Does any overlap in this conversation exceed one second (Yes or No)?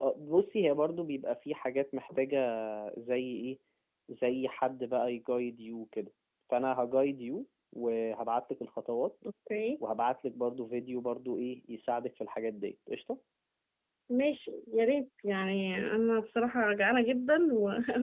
No